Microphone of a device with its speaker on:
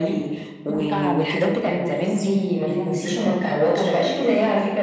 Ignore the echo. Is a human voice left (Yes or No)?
No